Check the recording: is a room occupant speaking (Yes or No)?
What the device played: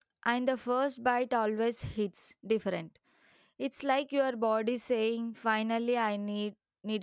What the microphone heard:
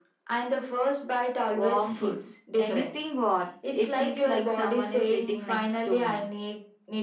Yes